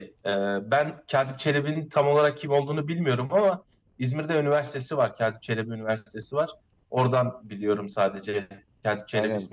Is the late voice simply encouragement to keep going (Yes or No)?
No